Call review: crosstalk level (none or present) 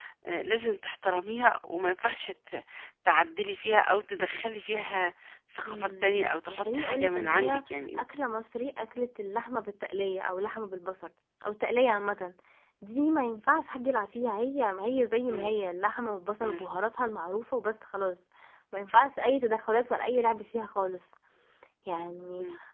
present